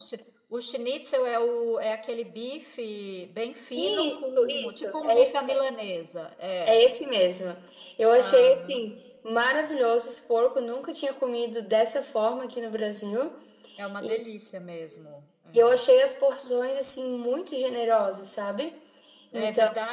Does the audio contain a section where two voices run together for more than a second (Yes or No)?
Yes